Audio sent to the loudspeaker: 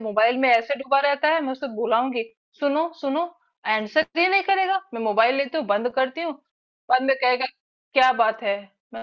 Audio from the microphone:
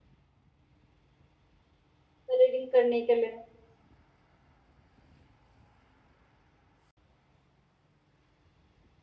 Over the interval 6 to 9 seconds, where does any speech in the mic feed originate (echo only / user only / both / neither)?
neither